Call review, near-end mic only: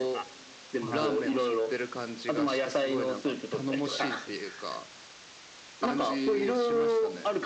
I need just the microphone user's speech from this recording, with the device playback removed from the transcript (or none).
は